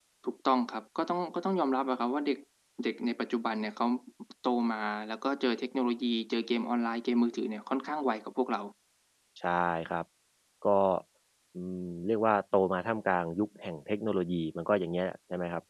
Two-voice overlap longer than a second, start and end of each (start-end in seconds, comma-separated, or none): none